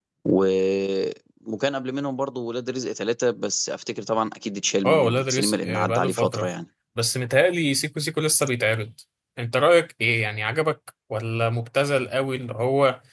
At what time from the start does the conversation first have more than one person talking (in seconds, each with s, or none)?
4.8 s